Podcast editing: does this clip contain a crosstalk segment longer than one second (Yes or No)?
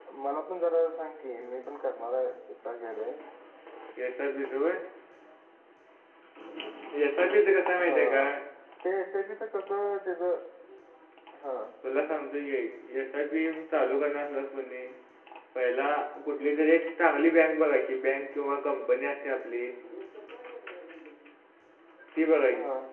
No